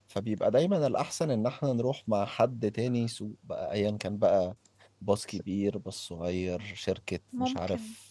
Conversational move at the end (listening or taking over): listening